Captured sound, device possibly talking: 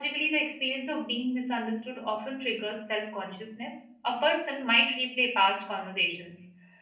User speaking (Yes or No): Yes